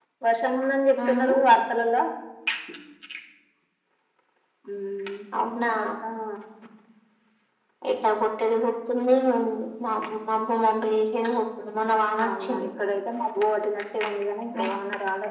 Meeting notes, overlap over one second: none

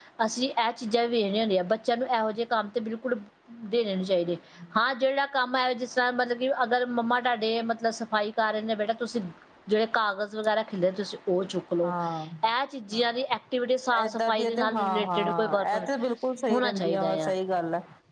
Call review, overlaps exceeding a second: present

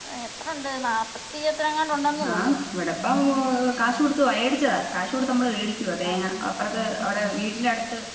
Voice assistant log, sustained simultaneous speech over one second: none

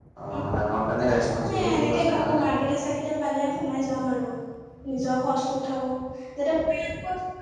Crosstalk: present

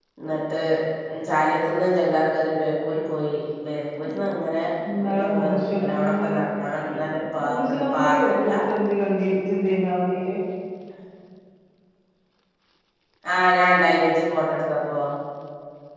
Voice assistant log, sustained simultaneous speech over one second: present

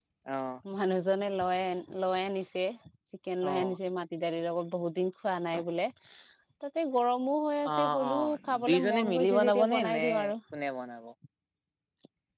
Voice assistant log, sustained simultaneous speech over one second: present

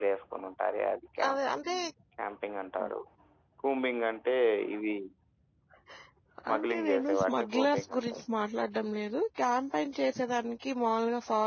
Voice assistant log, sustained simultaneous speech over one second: present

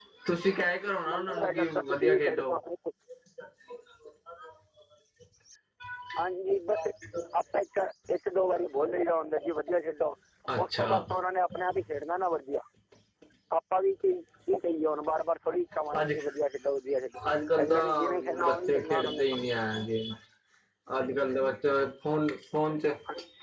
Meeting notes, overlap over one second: present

